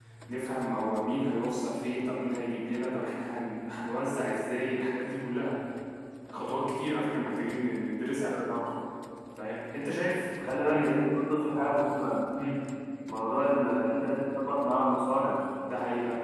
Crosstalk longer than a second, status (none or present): none